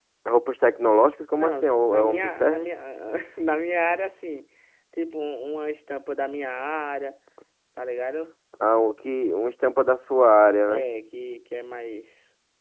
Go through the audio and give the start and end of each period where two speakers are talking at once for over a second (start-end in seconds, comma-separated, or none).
1.4-2.7